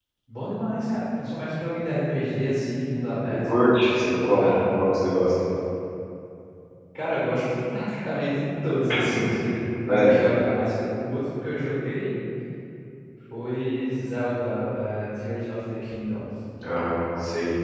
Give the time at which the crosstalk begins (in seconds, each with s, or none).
3.3 s